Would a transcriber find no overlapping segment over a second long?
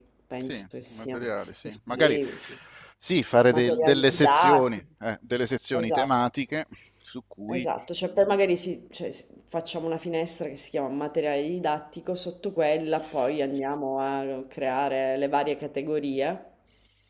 No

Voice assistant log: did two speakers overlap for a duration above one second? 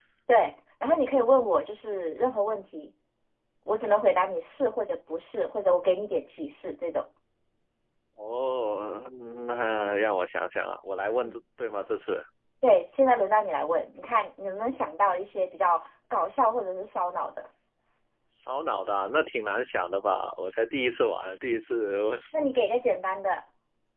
No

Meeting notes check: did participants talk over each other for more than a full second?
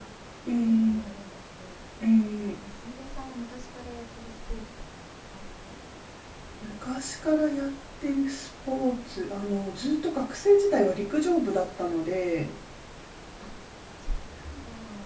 No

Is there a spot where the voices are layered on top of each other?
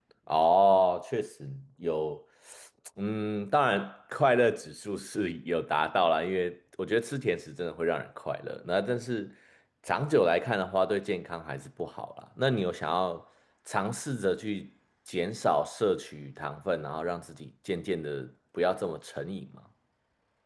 No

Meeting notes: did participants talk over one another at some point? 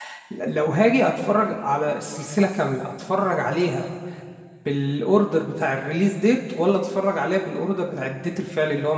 No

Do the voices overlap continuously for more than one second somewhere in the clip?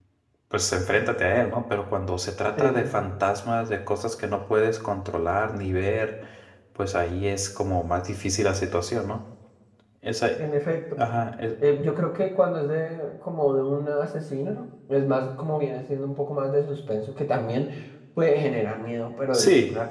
No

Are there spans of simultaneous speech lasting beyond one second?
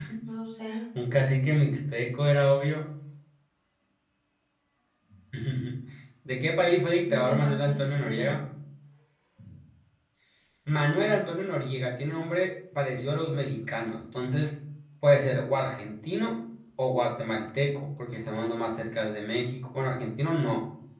Yes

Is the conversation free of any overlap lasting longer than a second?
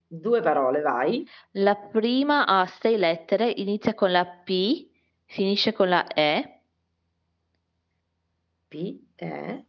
Yes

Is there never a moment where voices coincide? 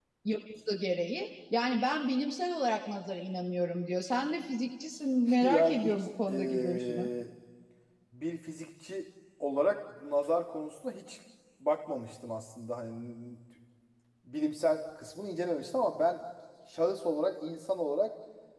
No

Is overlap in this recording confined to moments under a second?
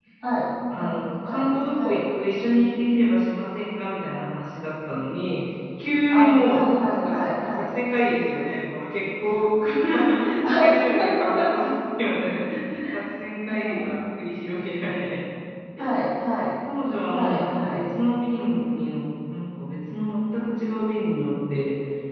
No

